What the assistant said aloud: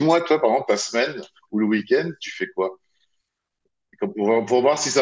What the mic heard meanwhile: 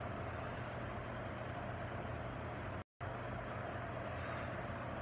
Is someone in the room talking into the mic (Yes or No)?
No